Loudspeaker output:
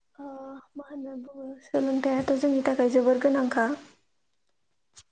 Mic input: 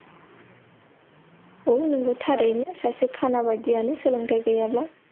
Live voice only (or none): औ नोंगौ थारैनो सासे खाना बायदियानो सोलोंथाइ गैयाब्ला